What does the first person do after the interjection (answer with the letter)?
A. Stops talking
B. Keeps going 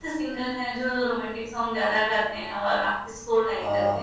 A